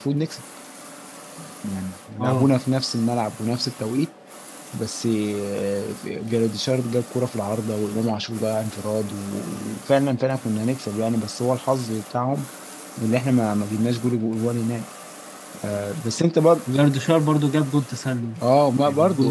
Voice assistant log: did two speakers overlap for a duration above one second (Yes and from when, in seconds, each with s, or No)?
No